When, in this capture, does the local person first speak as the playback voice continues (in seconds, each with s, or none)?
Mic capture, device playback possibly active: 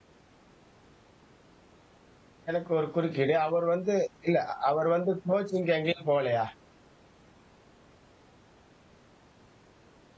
2.5 s